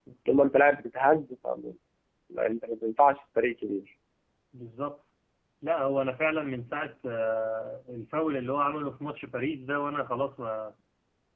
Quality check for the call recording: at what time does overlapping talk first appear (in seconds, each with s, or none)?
none